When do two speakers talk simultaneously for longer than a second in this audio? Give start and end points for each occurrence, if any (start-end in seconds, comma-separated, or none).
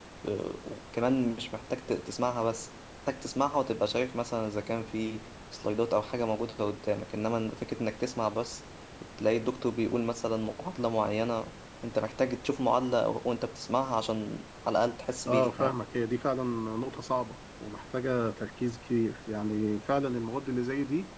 none